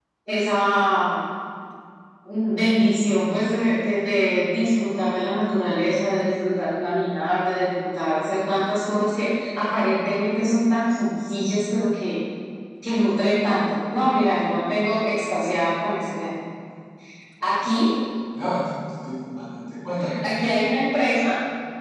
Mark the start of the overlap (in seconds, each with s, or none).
none